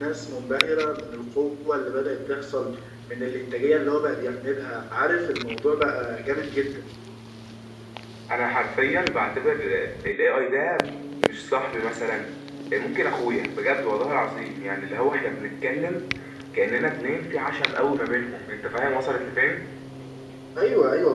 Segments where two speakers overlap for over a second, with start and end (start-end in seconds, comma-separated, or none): none